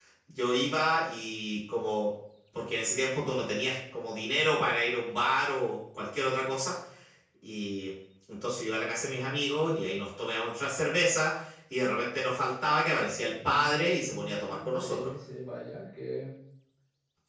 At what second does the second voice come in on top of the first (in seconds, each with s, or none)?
13.4 s